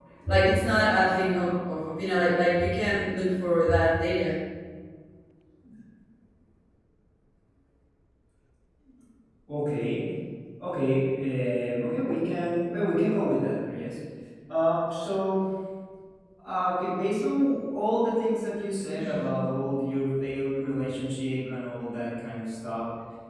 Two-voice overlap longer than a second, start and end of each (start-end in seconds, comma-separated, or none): none